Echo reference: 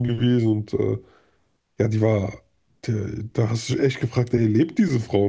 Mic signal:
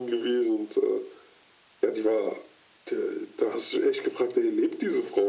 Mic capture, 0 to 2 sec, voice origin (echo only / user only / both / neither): echo only